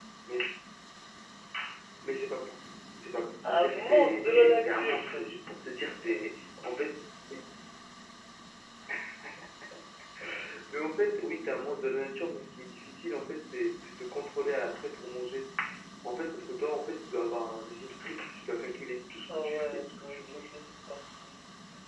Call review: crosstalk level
present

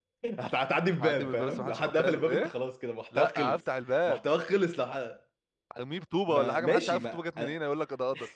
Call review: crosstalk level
present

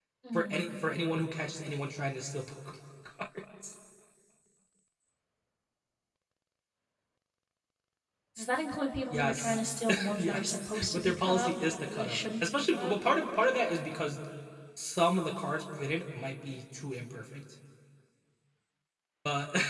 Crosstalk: present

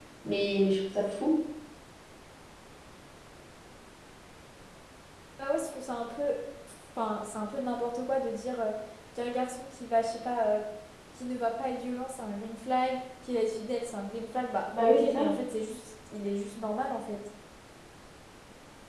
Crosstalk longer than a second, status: none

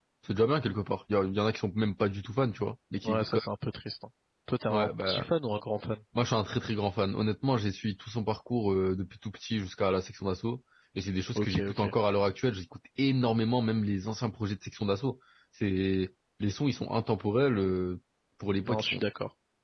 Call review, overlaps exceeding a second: none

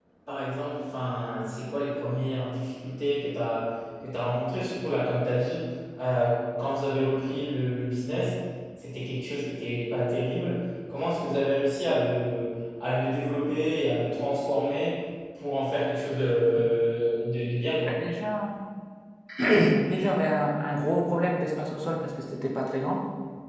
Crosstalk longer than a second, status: none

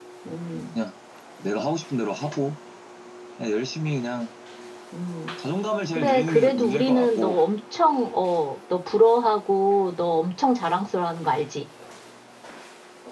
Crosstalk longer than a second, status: present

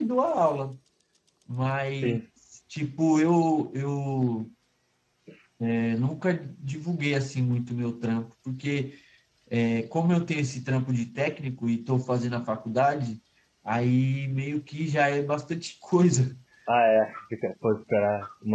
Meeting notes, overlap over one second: none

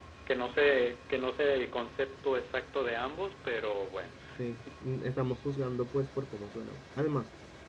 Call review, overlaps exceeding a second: none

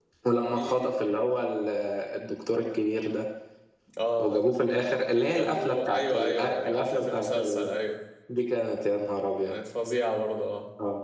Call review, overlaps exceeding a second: present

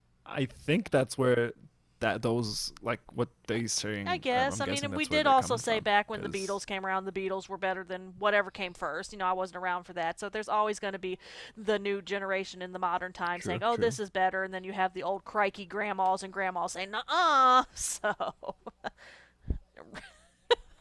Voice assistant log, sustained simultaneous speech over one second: present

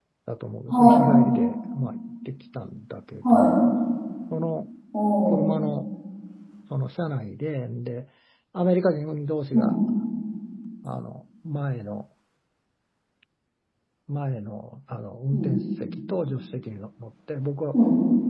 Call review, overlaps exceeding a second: none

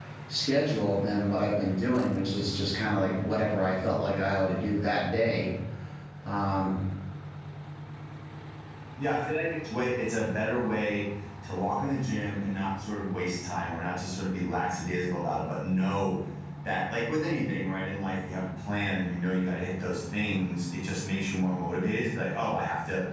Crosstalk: none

